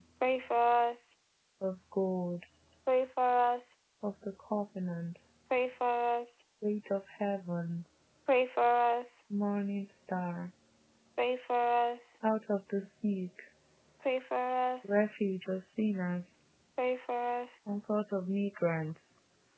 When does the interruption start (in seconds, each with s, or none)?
none